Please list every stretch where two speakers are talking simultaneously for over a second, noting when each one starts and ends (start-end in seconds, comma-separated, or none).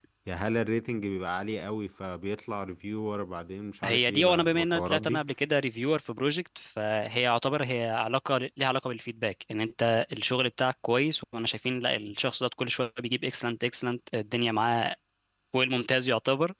3.8-5.2